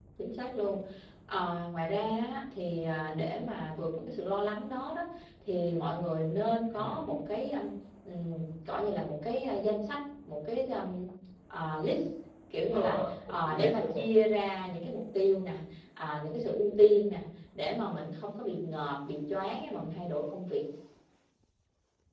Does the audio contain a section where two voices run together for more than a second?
Yes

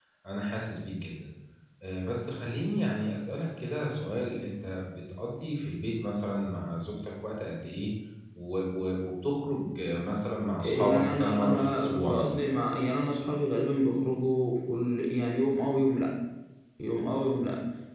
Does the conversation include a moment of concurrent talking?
Yes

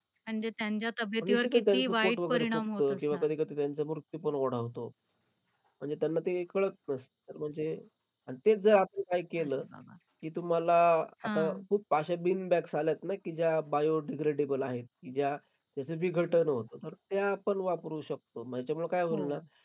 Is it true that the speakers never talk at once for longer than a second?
No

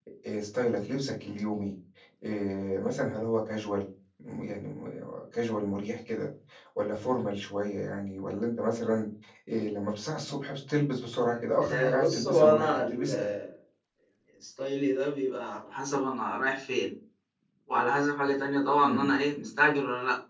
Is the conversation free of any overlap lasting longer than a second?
No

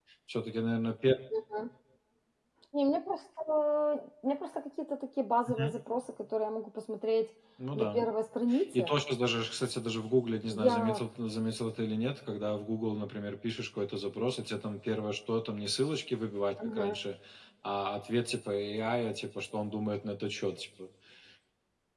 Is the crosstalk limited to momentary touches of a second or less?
Yes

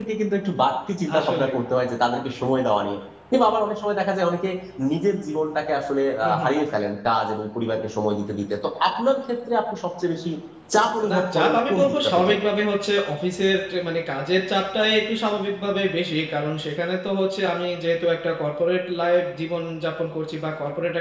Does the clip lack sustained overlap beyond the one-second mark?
No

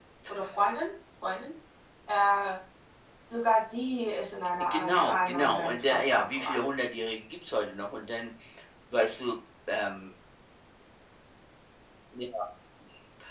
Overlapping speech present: Yes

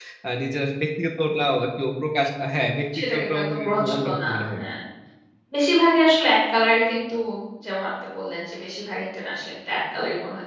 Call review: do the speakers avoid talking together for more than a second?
No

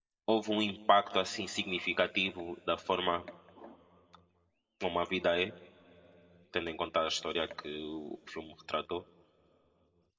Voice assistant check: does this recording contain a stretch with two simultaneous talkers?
No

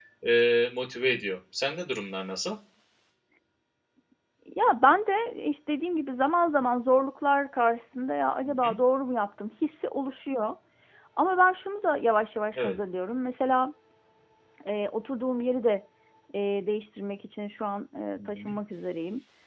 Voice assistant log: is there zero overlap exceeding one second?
Yes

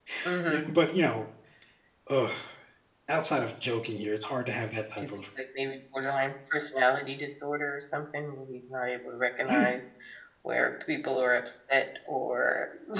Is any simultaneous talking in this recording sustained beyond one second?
No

